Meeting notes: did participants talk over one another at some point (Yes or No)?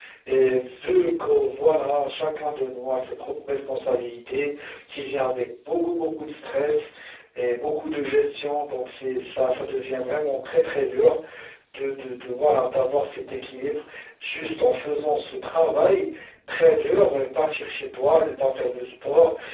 No